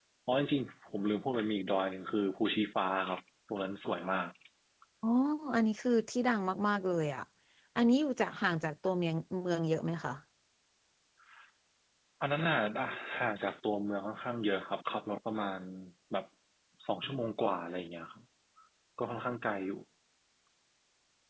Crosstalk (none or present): none